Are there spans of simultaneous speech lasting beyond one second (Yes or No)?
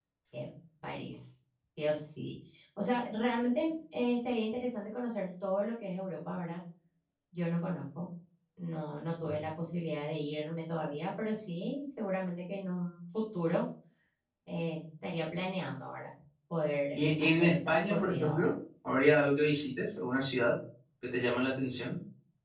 Yes